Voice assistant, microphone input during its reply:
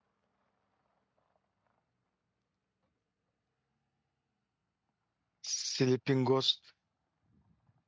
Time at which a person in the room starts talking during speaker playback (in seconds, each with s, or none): 5.4 s